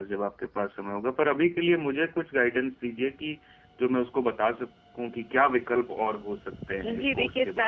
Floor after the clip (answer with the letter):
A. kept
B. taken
B